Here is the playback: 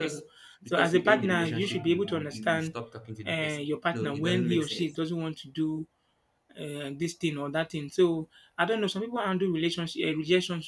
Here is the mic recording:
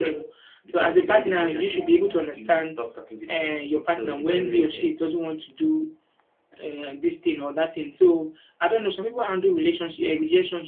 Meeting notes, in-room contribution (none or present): none